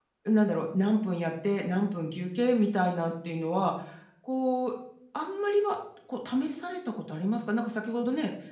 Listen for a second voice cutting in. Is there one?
No

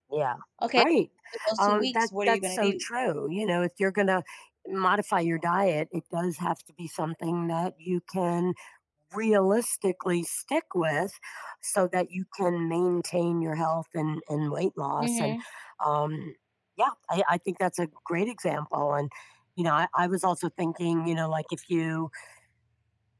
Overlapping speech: Yes, from 1.6 s

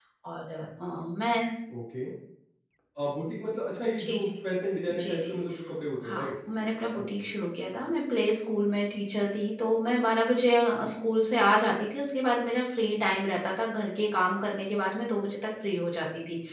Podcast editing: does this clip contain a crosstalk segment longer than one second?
No

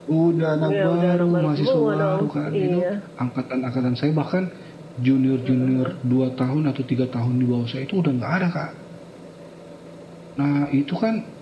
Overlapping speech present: Yes, from 0.7 s

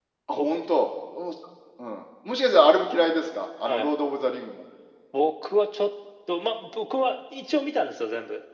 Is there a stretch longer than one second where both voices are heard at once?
No

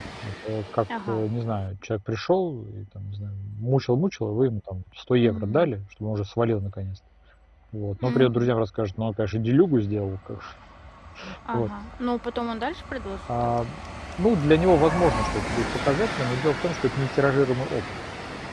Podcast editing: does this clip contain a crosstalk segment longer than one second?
No

